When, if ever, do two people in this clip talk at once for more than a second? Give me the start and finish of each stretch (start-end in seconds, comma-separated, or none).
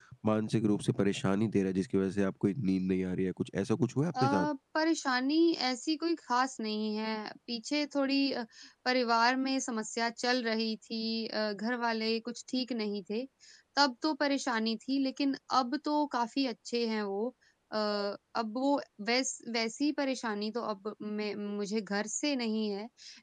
none